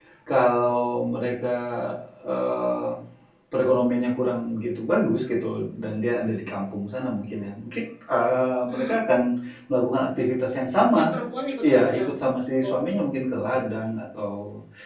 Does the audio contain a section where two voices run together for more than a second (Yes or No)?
No